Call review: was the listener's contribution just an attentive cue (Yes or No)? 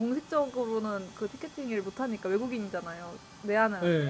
Yes